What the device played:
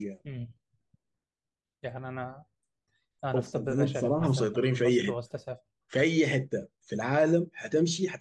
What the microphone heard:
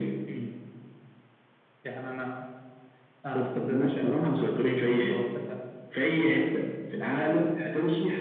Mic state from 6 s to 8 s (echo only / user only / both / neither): echo only